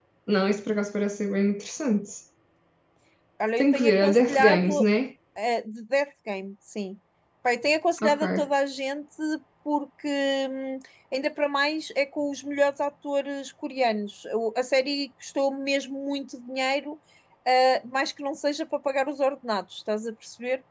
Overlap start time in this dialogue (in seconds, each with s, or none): 3.6 s